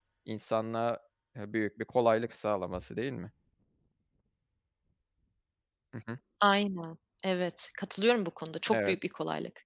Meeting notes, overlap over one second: none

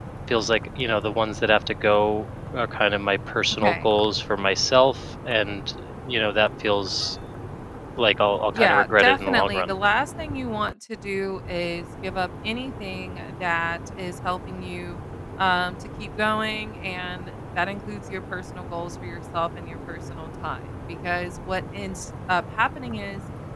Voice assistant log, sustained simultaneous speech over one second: present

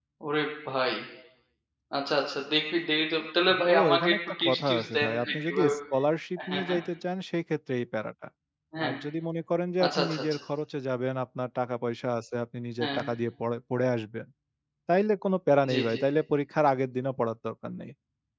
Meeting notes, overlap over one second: present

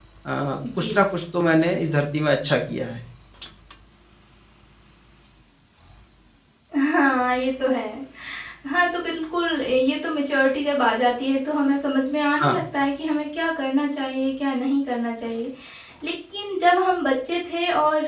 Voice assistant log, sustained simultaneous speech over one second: none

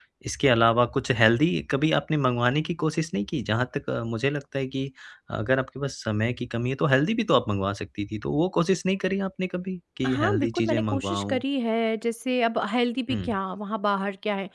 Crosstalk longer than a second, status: present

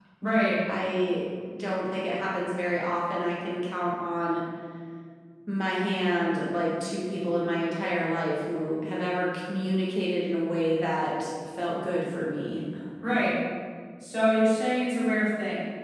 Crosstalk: none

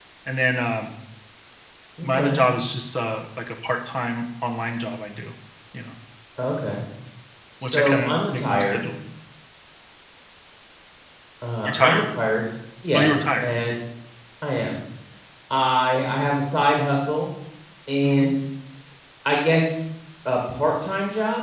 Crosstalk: present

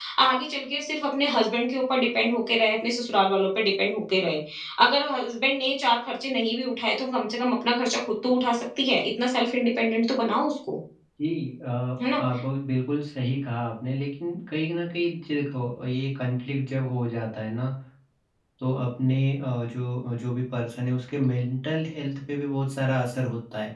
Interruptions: none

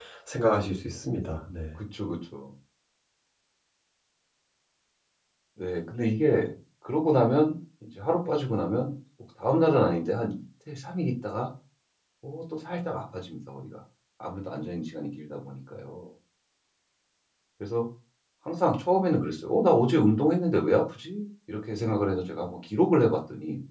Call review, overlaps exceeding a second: none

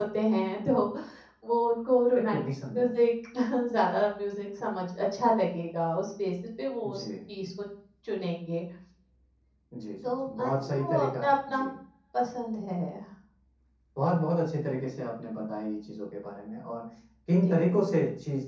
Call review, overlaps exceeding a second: present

